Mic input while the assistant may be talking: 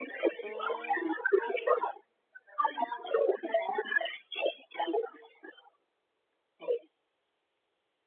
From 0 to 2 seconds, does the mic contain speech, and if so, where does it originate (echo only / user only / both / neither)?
both